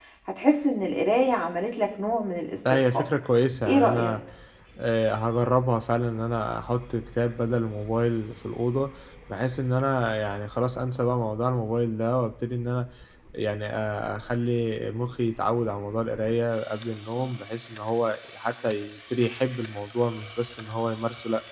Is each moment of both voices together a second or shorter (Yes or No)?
Yes